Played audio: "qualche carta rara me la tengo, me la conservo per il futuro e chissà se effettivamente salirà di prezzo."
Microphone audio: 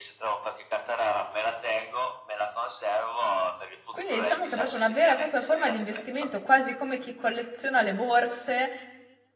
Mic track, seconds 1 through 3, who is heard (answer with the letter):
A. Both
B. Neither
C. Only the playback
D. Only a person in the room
C